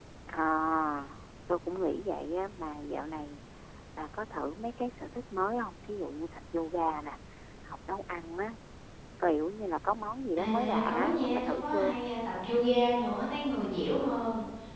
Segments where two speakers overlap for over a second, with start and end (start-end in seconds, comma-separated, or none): 10.4-12.0